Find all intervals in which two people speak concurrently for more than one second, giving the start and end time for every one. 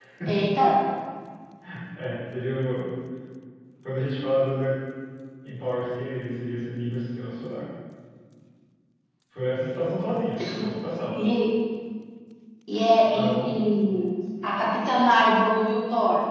none

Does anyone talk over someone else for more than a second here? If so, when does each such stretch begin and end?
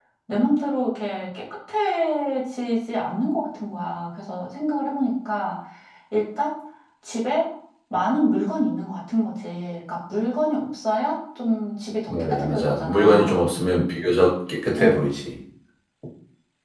12.1-13.4

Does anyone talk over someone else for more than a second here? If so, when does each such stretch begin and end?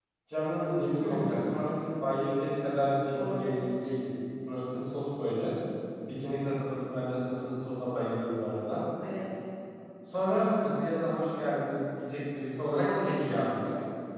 none

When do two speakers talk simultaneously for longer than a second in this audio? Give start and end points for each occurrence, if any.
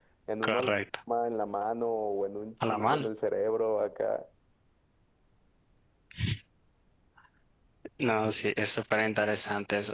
none

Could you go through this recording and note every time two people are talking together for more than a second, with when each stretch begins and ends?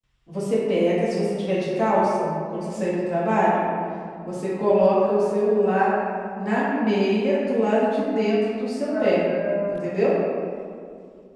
none

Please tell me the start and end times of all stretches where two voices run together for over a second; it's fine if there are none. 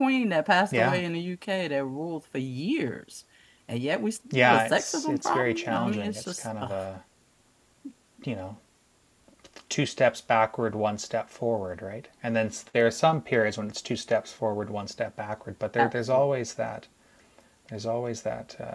4.3-6.7

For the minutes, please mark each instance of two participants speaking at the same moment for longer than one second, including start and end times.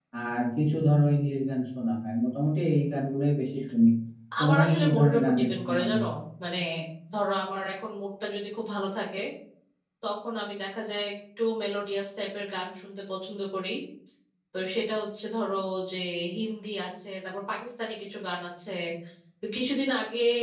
4.4-6.0

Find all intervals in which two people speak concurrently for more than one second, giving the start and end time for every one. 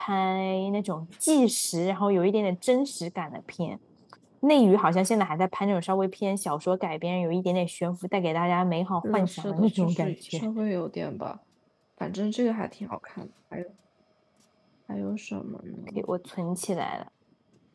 9.0-10.4

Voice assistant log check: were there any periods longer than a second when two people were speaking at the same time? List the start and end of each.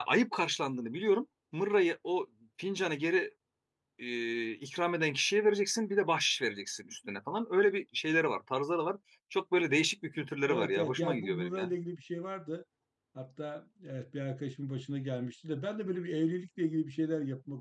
10.5-11.7

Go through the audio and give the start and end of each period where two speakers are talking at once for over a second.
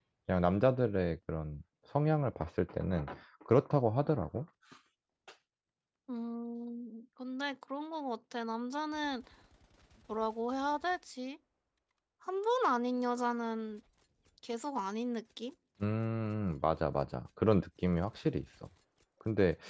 none

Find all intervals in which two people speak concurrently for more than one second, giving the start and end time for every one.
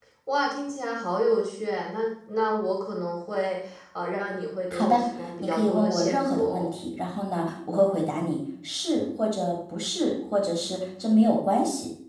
5.4-6.7

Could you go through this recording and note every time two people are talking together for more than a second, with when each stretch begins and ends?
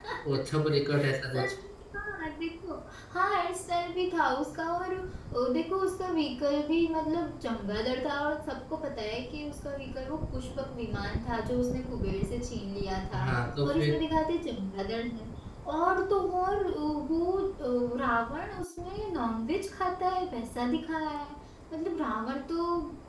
none

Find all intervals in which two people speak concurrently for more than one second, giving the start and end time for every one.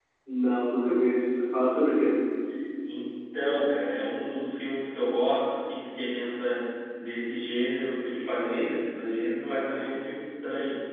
none

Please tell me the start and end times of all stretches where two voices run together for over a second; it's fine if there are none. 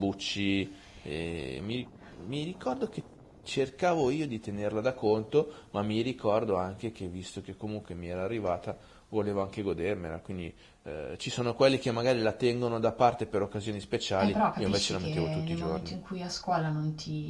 14.2-15.9

